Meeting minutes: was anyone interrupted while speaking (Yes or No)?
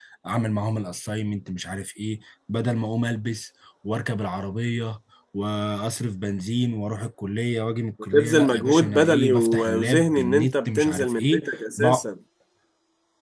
Yes